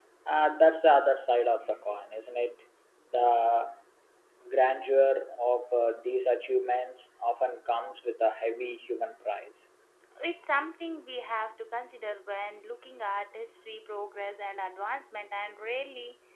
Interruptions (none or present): none